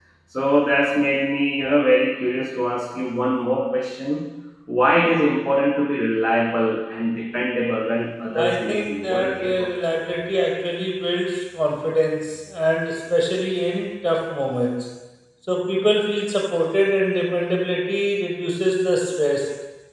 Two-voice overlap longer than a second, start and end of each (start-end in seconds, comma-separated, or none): 8.3-9.7